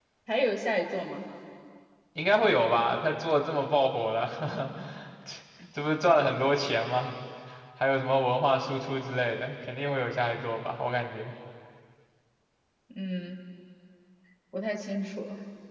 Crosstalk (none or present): none